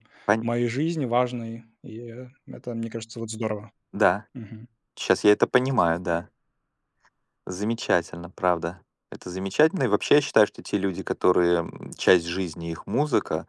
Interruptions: none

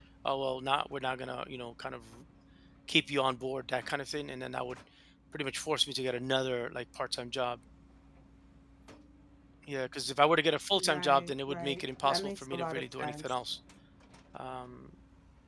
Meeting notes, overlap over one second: present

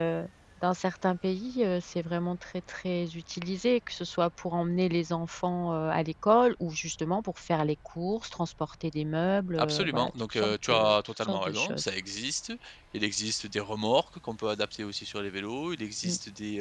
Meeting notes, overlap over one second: present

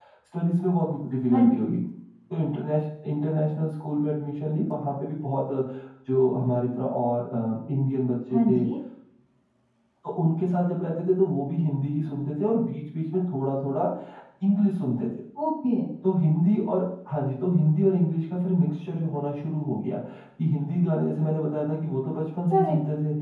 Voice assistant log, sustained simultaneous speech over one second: none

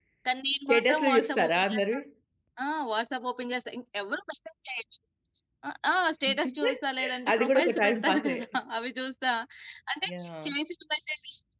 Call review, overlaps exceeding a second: present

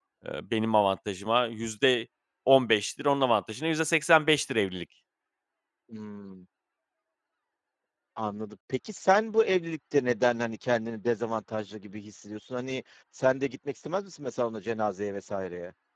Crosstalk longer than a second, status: none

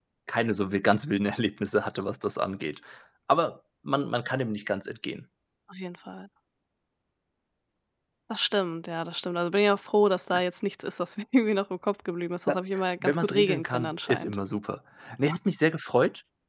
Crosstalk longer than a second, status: present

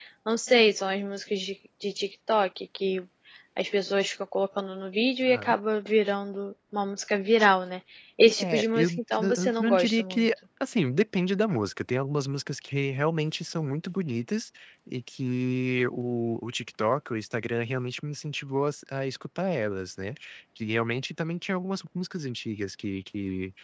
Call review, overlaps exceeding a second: present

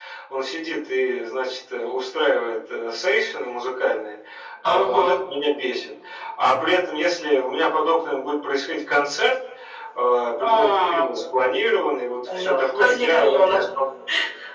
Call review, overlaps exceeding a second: present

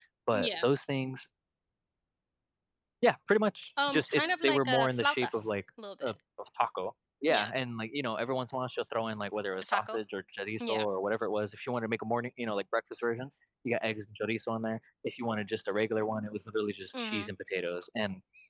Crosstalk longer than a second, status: present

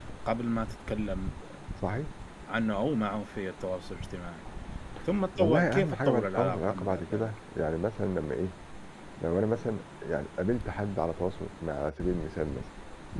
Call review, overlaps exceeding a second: present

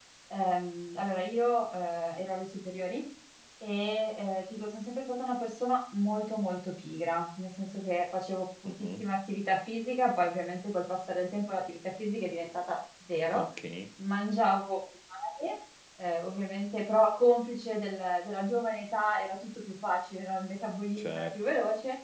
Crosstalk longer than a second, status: none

